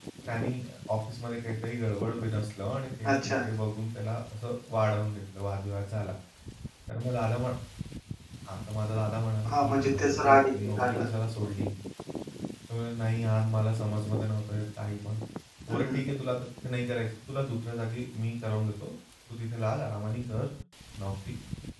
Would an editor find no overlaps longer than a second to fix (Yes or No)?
No